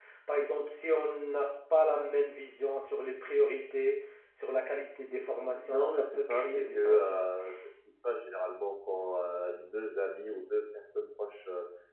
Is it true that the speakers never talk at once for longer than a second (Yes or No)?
No